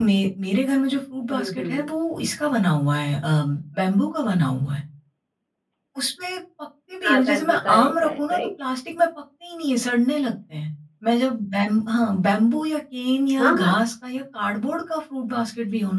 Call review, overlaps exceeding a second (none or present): present